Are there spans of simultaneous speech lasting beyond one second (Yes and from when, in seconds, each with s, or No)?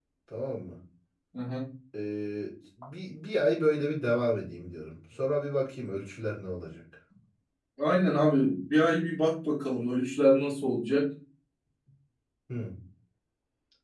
No